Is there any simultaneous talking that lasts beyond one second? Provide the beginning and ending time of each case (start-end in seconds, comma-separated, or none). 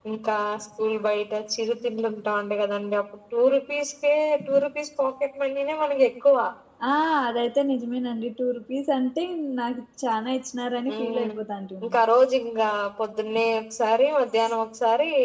none